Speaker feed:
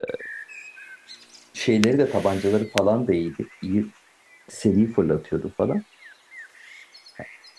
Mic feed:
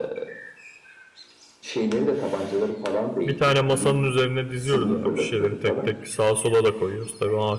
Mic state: both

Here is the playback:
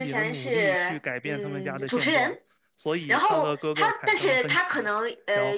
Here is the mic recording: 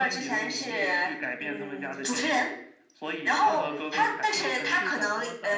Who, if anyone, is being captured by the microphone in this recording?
both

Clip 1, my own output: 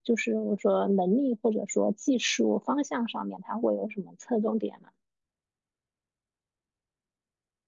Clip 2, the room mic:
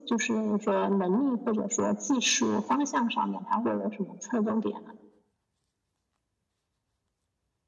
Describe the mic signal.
echo only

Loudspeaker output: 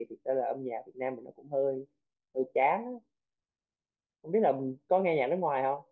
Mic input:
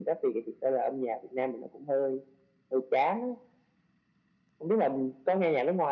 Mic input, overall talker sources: echo only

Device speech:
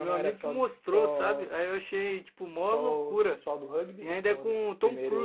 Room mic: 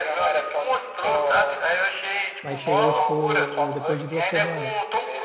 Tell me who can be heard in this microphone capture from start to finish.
both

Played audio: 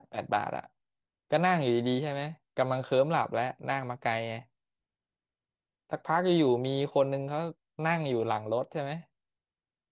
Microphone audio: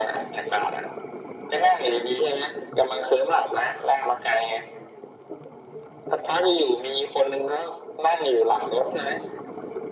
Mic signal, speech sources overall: echo only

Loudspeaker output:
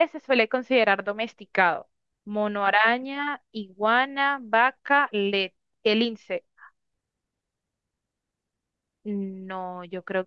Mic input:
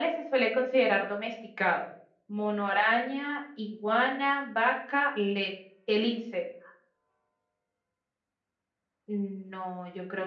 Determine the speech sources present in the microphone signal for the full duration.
echo only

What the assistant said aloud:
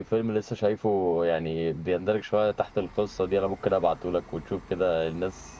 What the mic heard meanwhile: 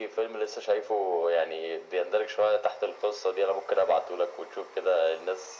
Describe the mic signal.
echo only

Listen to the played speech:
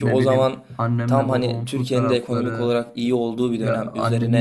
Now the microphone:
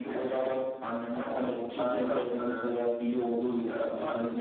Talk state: both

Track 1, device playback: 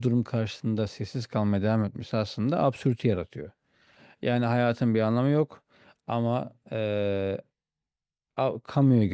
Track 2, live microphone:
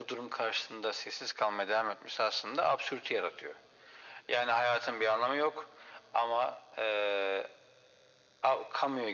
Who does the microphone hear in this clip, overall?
echo only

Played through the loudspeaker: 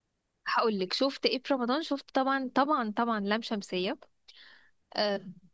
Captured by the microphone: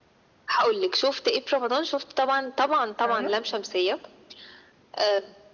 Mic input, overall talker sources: both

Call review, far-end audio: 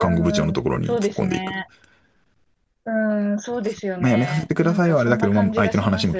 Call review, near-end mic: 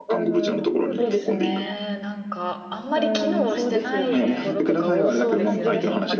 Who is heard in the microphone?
both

